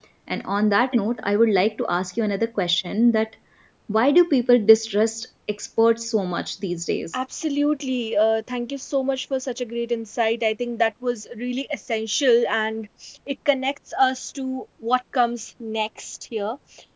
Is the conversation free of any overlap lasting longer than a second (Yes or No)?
Yes